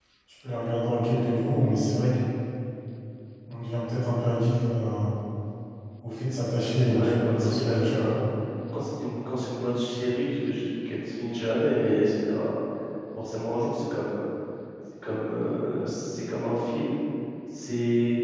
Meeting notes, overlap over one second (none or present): present